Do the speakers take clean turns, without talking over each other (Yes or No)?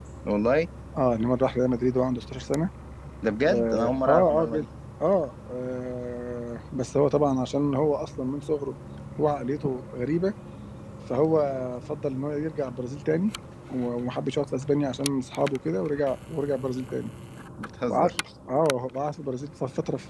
No